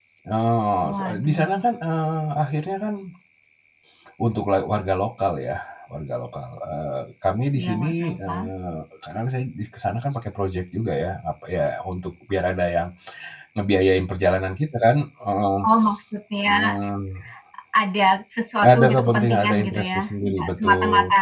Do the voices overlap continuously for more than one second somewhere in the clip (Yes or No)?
Yes